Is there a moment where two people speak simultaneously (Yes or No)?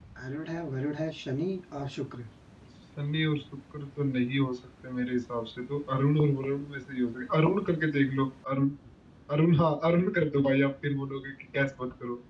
No